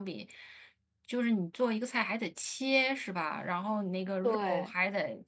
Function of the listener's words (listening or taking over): listening